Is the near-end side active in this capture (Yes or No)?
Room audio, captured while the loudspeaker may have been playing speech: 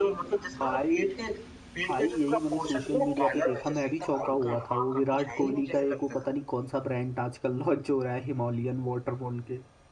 Yes